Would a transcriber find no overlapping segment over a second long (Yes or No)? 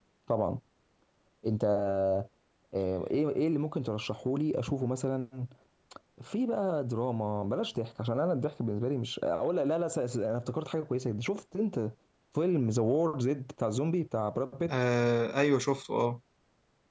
Yes